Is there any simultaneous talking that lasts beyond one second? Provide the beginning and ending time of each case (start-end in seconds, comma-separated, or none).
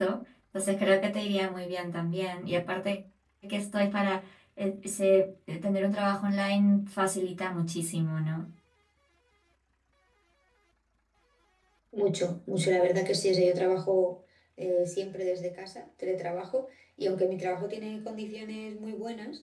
none